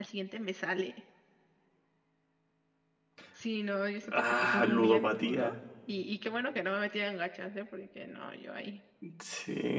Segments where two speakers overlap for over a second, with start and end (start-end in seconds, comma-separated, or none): 4.1-5.5